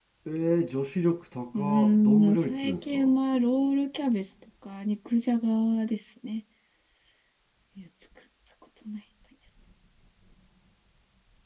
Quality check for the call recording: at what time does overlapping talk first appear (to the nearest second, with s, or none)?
2 s